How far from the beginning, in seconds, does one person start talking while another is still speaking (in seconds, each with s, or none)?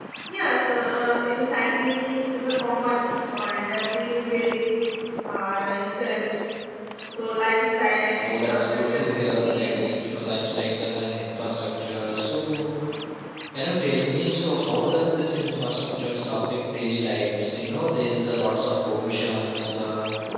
8.2 s